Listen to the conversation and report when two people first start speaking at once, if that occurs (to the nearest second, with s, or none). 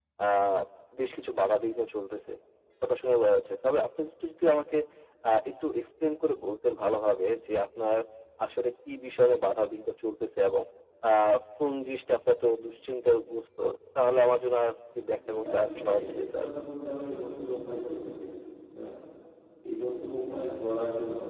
15 s